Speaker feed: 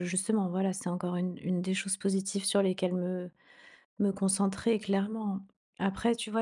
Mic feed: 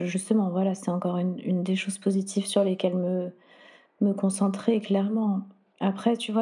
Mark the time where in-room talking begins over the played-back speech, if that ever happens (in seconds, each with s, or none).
none